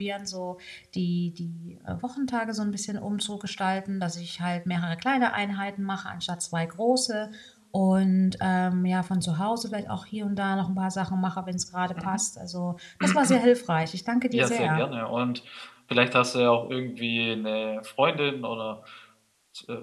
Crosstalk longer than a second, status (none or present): none